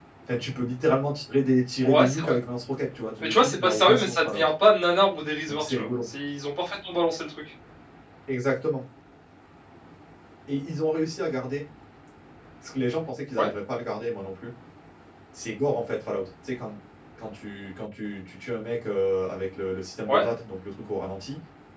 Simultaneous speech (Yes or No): Yes